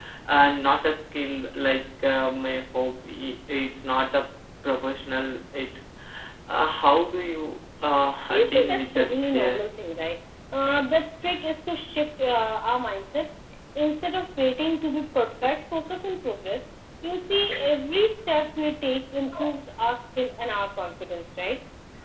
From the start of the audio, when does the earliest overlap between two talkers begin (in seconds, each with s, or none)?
8.3 s